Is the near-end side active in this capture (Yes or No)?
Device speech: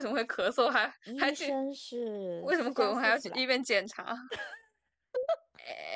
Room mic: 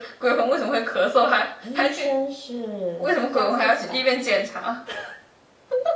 No